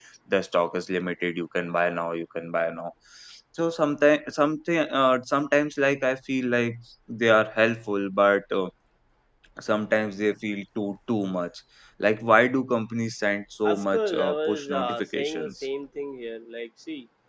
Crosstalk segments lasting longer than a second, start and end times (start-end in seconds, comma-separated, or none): 13.6-15.6